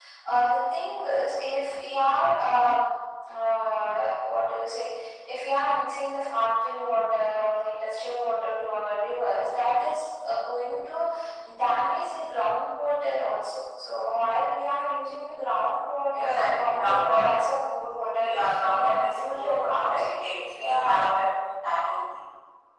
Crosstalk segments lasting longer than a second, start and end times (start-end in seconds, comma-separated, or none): 16.2-17.4, 17.9-20.0